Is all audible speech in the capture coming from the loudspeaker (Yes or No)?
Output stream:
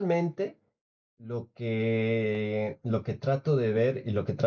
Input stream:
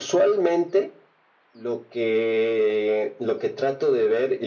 Yes